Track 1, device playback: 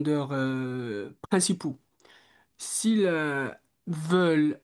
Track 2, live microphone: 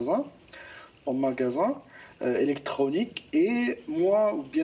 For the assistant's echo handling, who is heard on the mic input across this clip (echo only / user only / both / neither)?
user only